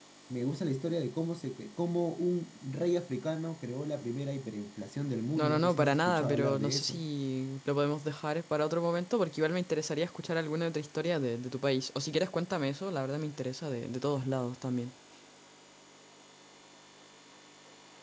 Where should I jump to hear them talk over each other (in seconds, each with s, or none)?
5.4 s